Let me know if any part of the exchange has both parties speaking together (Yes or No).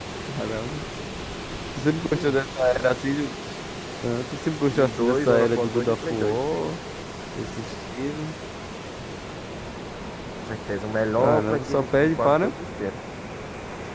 Yes